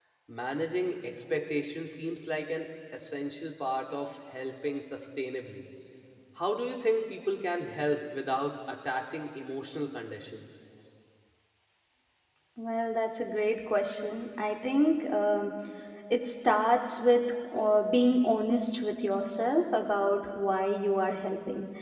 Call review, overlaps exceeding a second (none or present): none